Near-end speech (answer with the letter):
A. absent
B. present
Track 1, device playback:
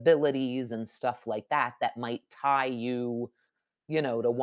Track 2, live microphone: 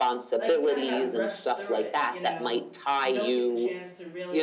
B